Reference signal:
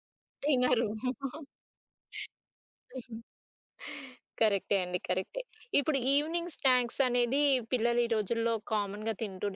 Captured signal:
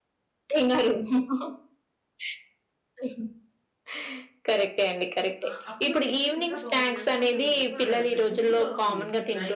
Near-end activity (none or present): present